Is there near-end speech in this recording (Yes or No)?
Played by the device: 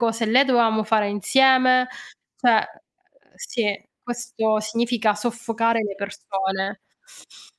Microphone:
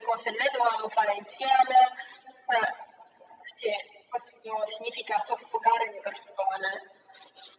No